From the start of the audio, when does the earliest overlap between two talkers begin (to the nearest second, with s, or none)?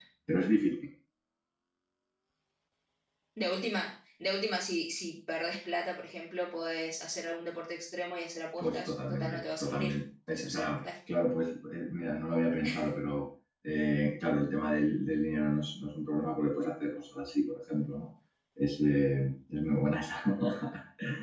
9 s